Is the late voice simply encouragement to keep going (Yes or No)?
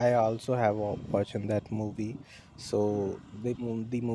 Yes